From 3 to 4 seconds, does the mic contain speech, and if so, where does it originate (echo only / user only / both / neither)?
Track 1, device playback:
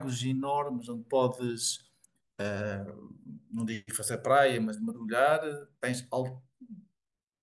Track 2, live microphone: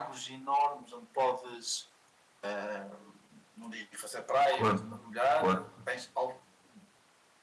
echo only